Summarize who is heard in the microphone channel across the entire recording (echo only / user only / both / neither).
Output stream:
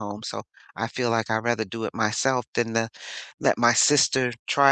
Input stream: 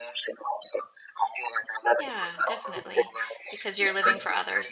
both